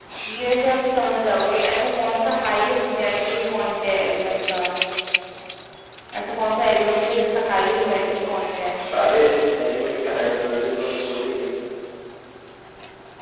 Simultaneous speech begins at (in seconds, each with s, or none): none